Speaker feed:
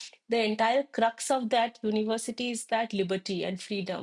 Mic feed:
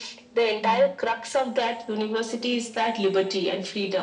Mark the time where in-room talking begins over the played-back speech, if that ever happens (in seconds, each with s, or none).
0.6 s